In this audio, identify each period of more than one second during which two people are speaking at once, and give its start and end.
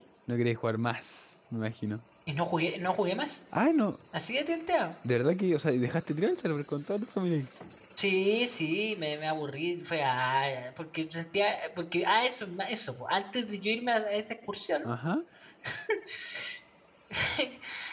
none

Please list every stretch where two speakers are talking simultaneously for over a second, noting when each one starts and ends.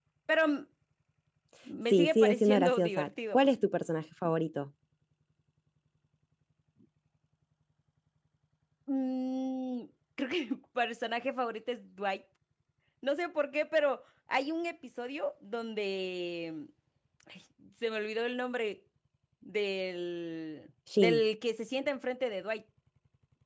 1.9-3.4

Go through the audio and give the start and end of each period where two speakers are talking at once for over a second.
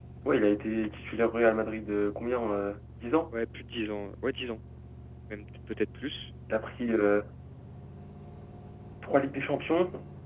none

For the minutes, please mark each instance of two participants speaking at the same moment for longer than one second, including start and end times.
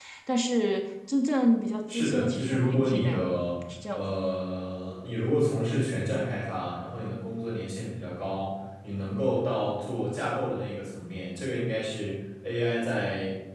1.9-3.2

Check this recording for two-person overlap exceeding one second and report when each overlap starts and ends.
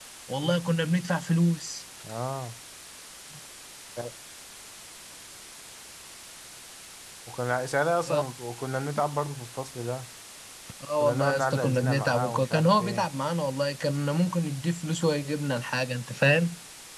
11.0-13.1

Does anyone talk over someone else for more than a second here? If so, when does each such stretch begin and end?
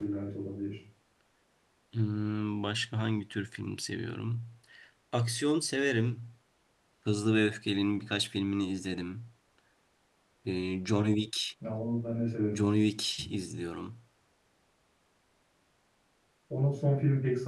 none

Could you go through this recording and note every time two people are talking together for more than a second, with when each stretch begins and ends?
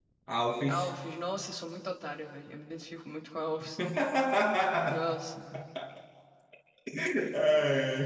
none

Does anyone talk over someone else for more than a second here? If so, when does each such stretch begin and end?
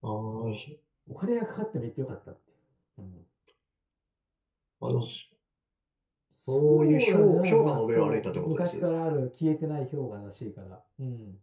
6.5-8.8

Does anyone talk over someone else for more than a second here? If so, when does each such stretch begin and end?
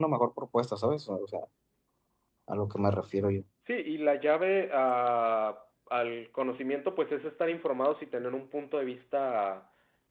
none

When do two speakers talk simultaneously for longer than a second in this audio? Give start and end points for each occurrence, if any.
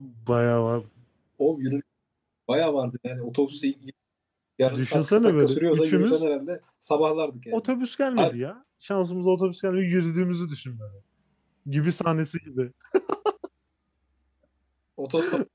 4.7-6.2

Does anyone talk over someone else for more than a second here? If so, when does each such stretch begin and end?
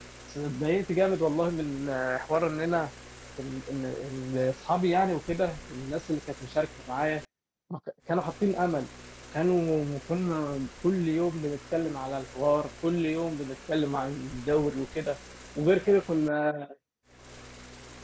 none

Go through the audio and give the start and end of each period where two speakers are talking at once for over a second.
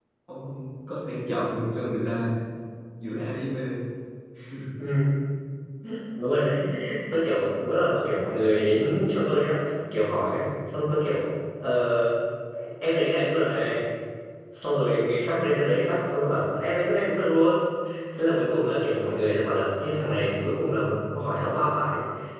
none

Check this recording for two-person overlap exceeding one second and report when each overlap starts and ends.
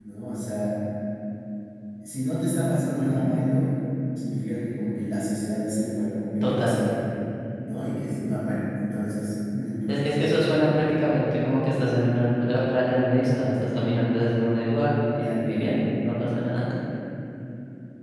none

